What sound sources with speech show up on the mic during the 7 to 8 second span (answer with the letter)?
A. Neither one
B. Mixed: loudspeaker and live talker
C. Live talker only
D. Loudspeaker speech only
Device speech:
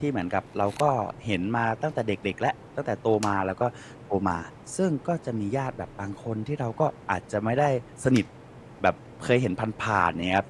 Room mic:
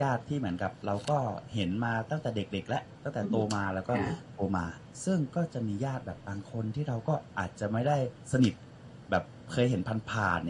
D